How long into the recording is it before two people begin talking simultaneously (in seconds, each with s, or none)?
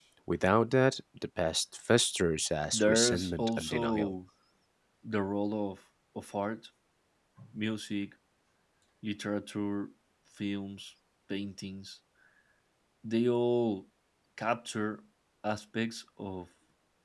2.7 s